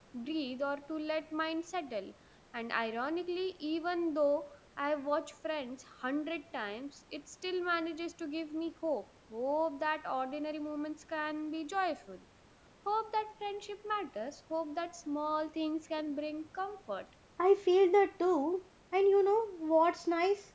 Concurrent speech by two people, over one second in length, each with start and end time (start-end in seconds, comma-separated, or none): none